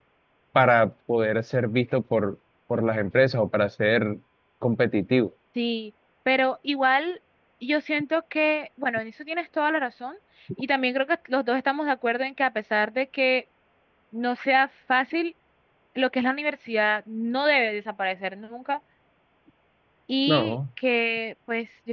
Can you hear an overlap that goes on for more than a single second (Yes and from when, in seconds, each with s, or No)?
No